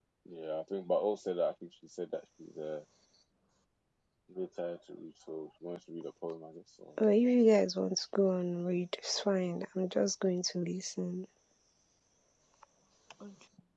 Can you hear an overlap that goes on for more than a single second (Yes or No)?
No